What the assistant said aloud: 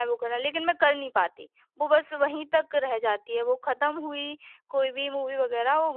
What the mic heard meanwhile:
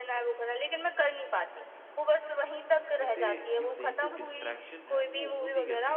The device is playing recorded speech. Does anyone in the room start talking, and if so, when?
3.0 s

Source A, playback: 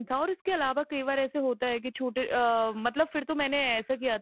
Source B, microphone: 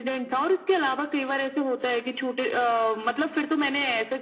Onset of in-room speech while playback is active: none

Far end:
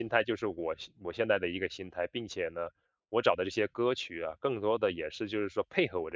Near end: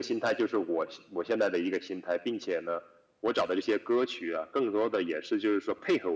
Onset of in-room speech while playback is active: none

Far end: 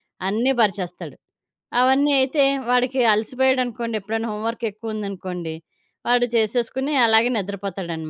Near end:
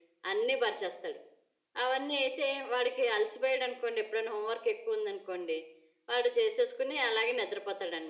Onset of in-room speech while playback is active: none

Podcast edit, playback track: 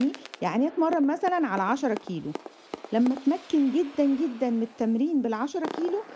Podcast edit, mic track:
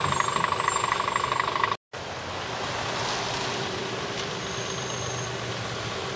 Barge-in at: none

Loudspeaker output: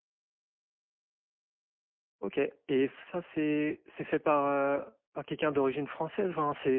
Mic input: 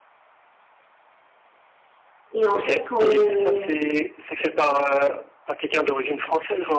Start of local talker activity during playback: 2.3 s

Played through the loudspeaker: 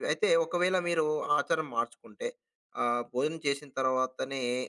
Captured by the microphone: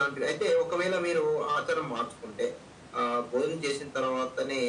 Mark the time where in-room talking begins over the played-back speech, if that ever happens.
none

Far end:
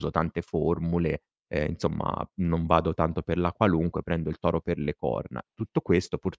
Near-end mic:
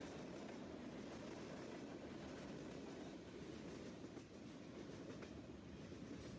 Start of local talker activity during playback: none

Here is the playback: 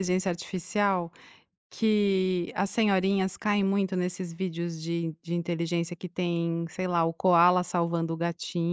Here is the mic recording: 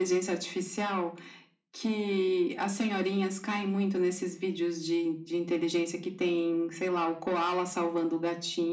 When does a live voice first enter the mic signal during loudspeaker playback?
none

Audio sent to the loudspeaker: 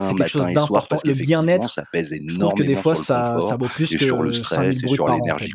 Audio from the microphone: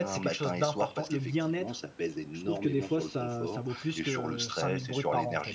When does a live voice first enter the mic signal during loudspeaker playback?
none

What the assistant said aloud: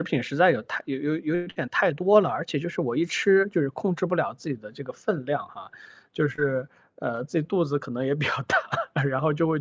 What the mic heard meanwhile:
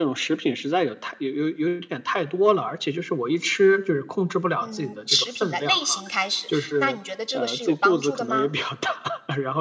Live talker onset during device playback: 4.6 s

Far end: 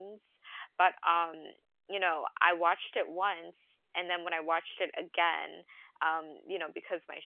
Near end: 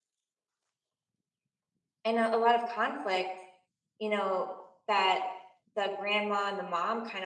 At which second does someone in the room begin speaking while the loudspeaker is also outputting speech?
2.0 s

